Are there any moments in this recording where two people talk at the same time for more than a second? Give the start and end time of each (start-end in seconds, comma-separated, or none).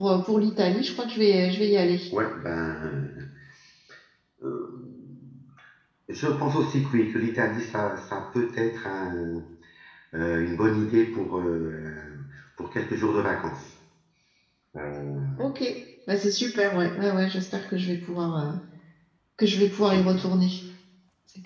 none